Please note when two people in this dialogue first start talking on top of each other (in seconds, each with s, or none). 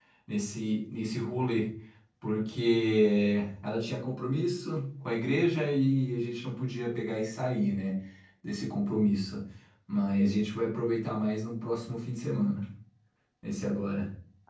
none